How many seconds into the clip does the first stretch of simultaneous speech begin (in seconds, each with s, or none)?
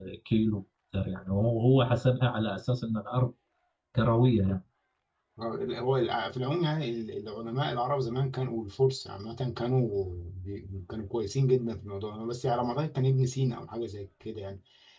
none